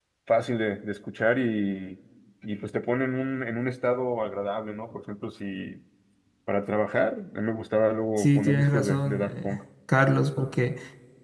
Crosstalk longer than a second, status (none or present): present